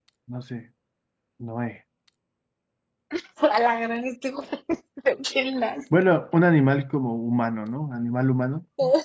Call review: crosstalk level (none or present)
none